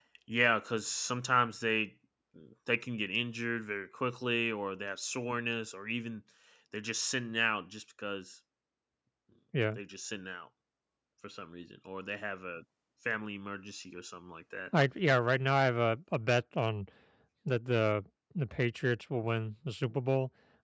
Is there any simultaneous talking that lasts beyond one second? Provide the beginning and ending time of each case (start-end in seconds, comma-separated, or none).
none